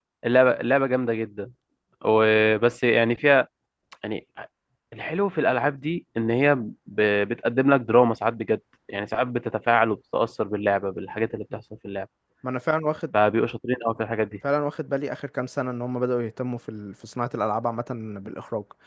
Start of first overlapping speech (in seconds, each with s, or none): none